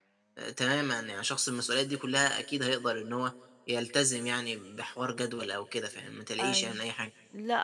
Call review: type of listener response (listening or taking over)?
taking over